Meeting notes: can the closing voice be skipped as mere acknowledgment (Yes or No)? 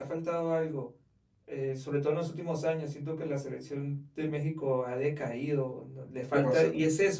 Yes